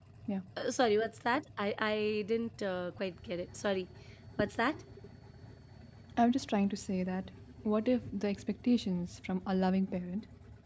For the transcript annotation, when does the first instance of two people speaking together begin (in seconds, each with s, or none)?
none